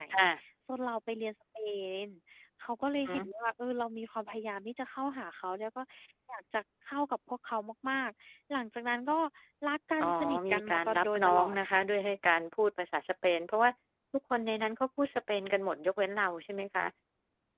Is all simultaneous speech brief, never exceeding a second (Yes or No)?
No